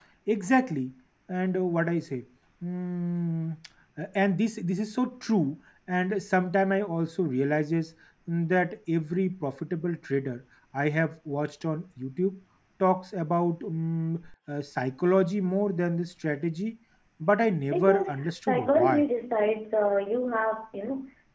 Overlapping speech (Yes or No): Yes